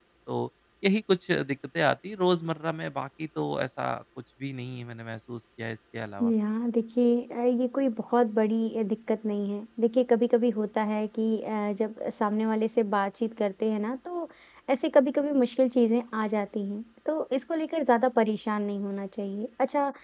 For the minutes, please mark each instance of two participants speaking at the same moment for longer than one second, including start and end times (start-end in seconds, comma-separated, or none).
none